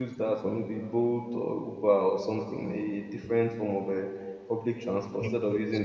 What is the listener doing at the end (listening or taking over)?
listening